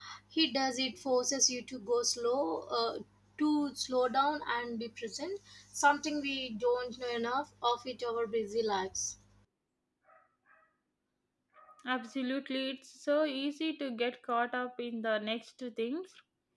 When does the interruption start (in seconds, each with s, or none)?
none